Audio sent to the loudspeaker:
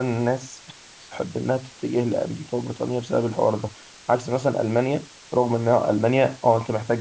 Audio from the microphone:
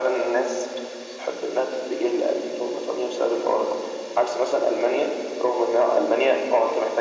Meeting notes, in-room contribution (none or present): none